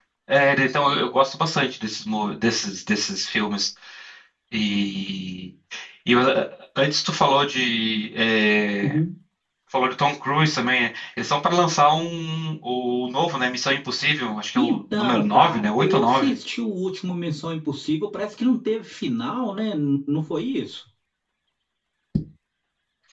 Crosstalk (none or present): present